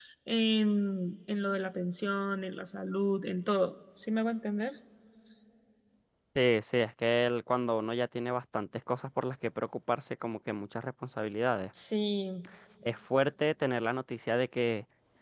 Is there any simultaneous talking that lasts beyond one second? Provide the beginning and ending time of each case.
none

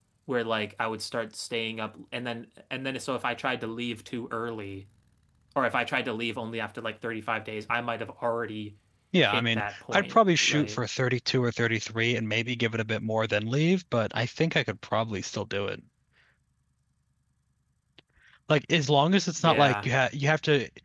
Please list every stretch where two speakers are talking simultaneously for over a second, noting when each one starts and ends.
9.2-10.8

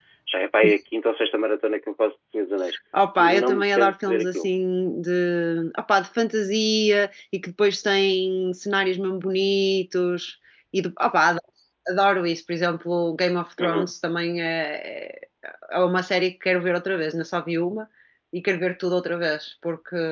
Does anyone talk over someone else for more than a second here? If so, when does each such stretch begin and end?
3.2-4.5

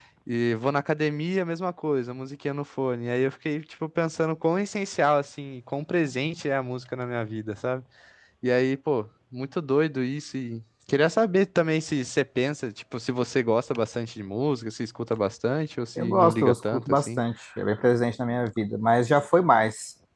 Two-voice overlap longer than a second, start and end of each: 16.0-17.2

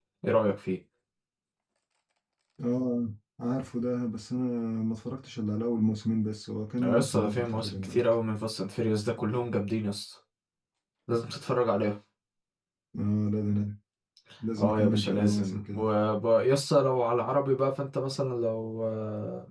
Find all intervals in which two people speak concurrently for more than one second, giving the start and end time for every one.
6.8-8.0, 14.6-15.8

